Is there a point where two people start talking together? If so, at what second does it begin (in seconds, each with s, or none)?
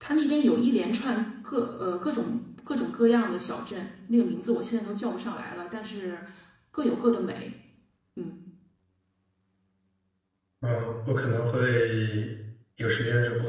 none